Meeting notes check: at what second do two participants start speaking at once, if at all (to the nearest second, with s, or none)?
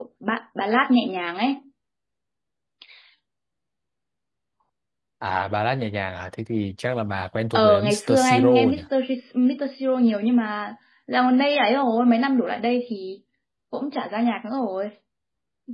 8 s